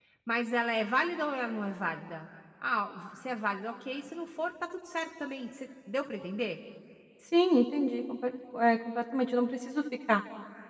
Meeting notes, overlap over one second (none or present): none